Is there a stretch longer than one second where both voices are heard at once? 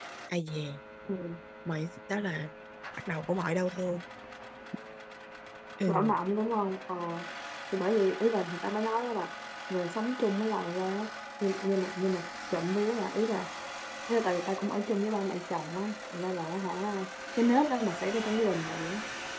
No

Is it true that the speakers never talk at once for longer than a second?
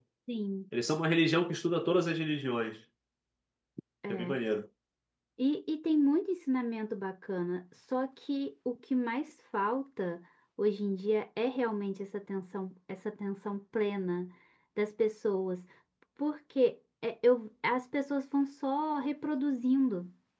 Yes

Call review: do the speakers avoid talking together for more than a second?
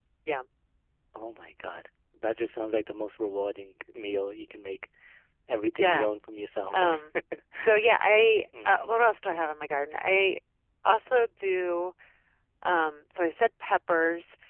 Yes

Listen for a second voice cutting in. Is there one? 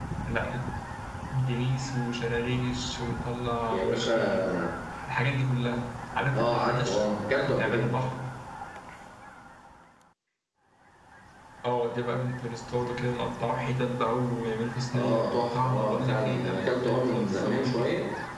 Yes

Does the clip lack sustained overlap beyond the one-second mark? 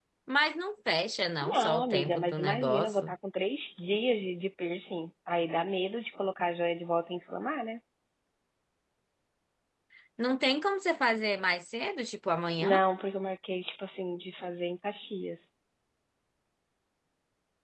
No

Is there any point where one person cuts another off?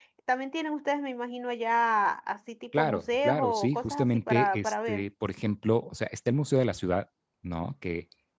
Yes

